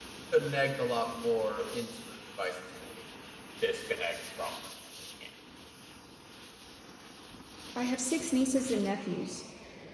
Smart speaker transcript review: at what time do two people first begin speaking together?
none

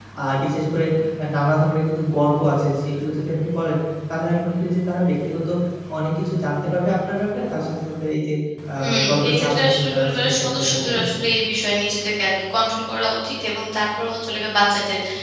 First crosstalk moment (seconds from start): 8.8 s

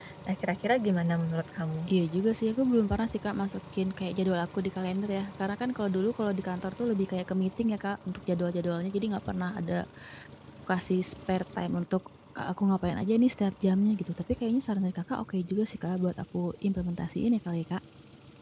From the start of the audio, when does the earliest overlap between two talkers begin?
none

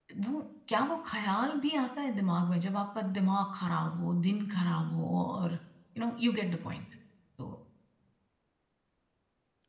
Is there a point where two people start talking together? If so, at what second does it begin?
none

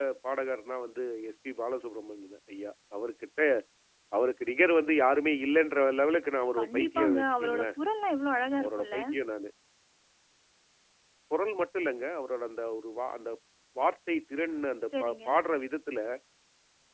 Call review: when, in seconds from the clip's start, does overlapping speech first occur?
6.6 s

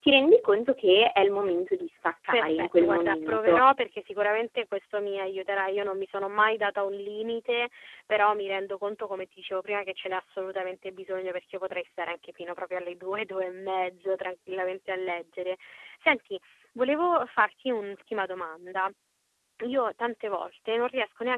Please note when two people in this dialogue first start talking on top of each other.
2.3 s

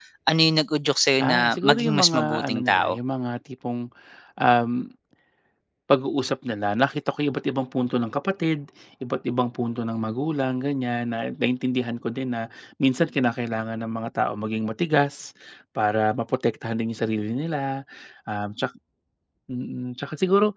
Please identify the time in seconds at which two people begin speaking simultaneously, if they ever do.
1.2 s

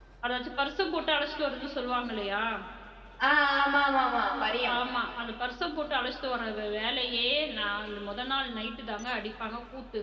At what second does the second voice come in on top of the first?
none

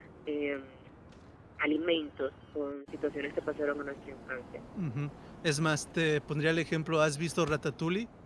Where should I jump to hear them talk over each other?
none

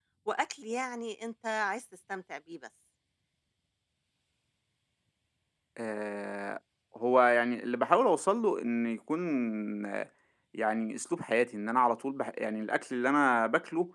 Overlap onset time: none

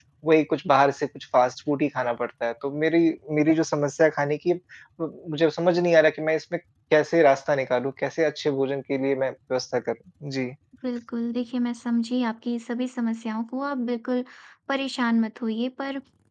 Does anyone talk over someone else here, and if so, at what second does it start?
none

